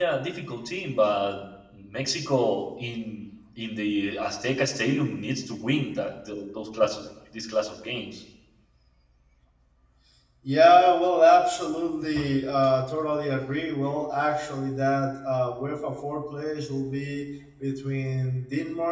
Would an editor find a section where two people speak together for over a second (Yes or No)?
No